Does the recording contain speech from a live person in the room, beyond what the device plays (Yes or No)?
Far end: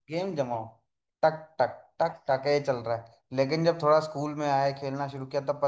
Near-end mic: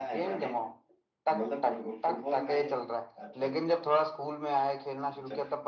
Yes